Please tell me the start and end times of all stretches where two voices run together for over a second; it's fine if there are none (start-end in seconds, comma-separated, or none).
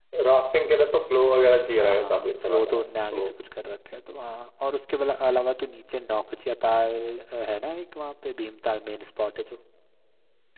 1.8-3.2